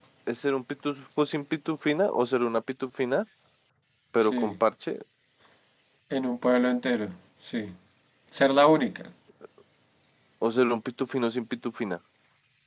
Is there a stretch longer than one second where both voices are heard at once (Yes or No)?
No